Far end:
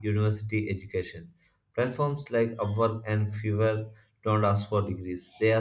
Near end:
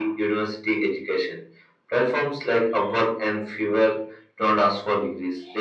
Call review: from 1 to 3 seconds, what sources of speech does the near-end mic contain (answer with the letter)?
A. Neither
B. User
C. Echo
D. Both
C